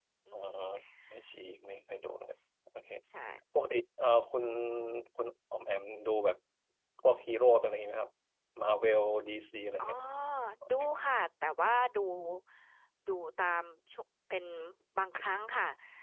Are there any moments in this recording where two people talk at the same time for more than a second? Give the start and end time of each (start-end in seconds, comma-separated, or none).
none